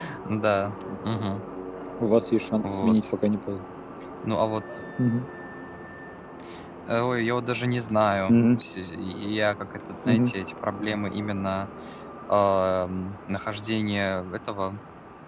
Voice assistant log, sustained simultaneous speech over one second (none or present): none